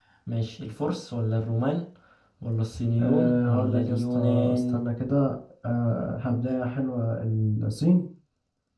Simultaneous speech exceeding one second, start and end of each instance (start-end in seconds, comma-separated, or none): 3.0-4.8